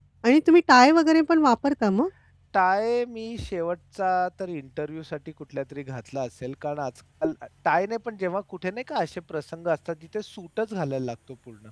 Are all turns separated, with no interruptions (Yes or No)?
Yes